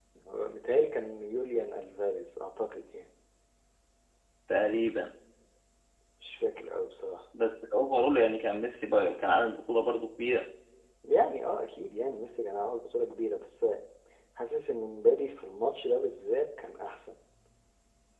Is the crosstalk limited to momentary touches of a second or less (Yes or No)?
Yes